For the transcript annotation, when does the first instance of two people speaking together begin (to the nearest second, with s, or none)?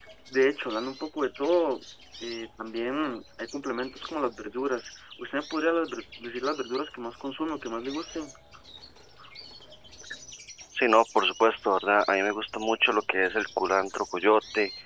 none